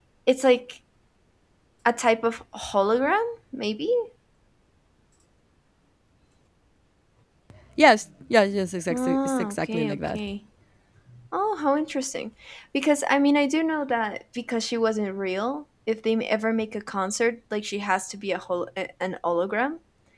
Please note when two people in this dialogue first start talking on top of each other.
8.9 s

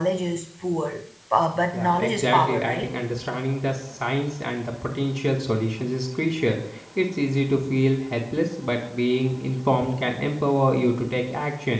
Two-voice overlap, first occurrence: 1.7 s

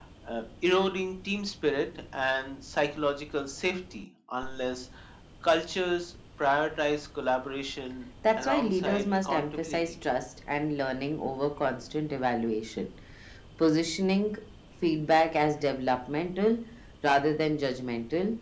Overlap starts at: 8.2 s

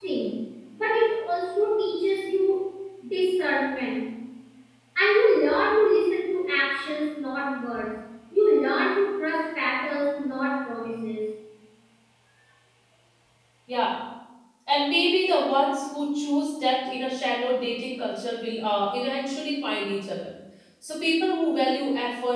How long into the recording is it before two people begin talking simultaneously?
none

